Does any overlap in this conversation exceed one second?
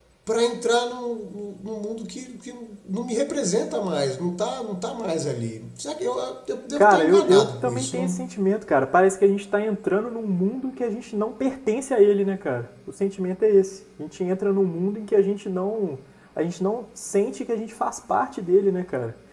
Yes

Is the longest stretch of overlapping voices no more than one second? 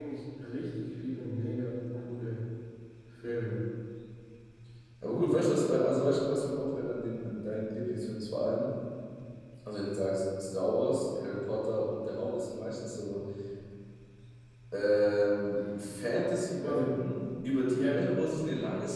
Yes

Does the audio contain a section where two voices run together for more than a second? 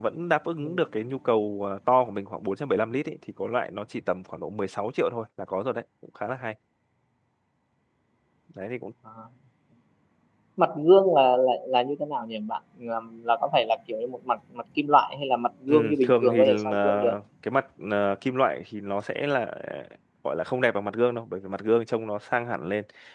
Yes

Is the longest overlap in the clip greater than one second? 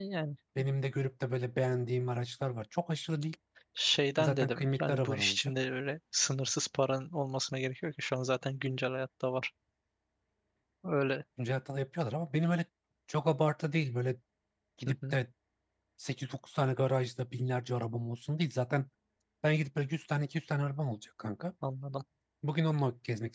Yes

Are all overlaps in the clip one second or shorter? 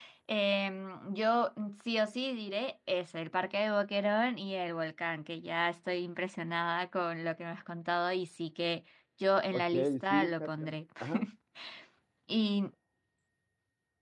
No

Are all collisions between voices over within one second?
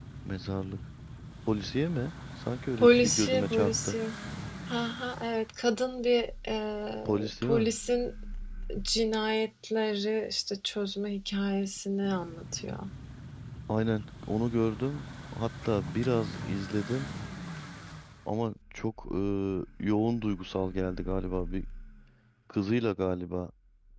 No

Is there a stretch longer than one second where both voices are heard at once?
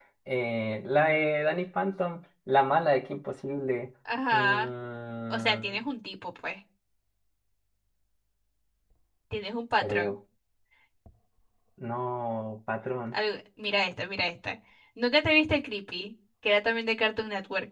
No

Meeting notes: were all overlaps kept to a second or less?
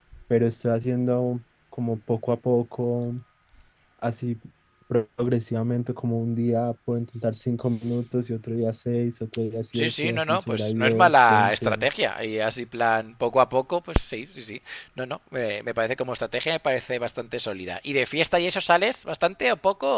No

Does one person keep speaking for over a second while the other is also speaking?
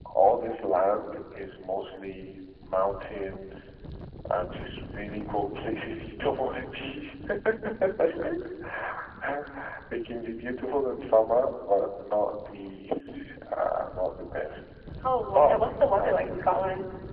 No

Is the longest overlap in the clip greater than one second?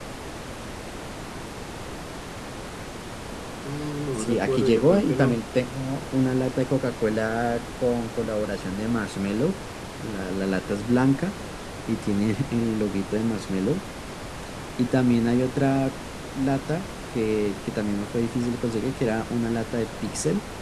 Yes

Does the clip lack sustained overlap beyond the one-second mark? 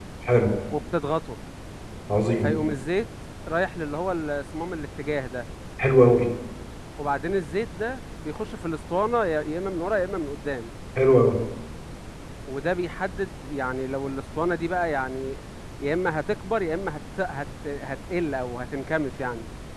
Yes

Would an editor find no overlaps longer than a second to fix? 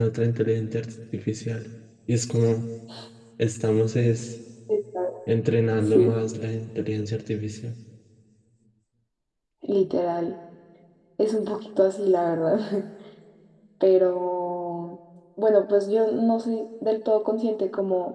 Yes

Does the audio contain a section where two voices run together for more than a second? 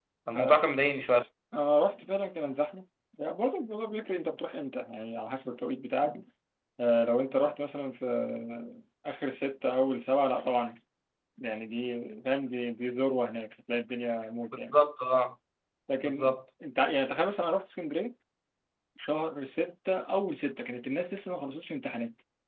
No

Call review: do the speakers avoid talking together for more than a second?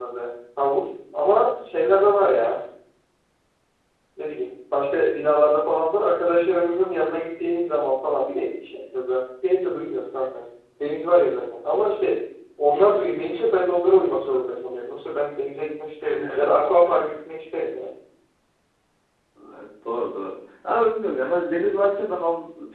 Yes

